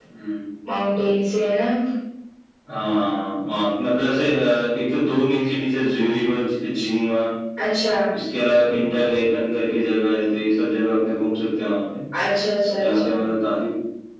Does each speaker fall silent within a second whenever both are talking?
Yes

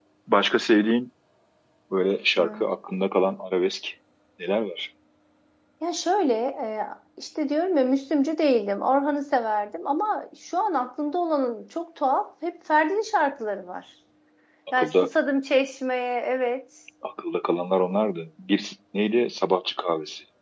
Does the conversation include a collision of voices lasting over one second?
No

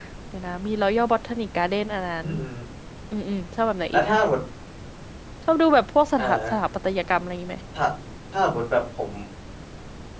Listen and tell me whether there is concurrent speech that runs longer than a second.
No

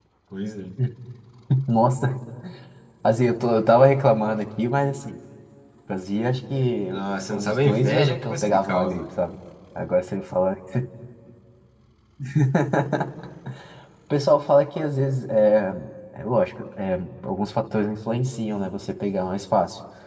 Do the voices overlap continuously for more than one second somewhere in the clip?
Yes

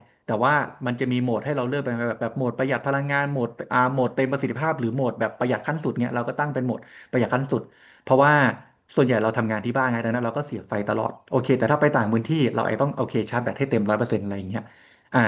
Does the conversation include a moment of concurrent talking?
No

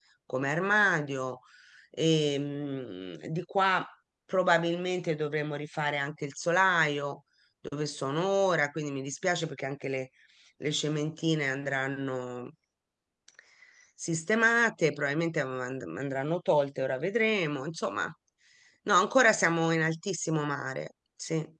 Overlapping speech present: No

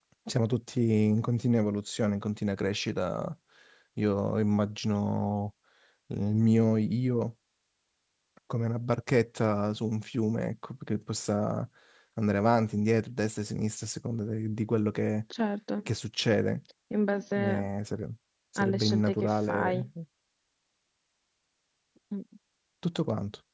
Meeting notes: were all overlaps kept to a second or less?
No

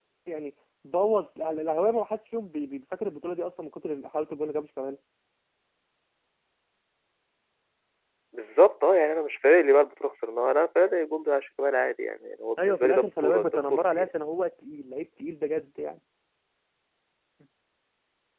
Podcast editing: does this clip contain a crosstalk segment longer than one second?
Yes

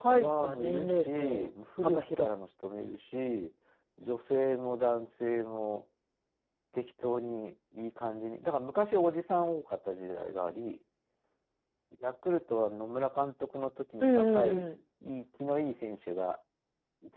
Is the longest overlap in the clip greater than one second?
Yes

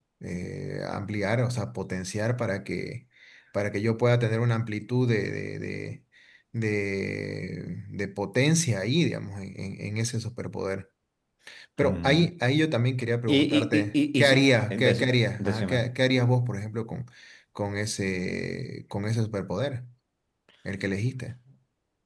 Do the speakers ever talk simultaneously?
Yes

